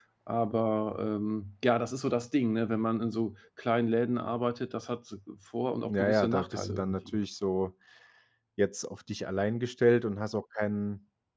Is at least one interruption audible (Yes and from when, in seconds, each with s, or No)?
Yes, from 5.8 s